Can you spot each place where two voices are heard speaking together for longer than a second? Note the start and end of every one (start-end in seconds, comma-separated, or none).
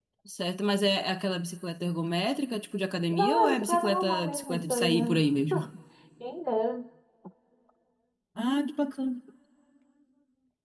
3.1-5.2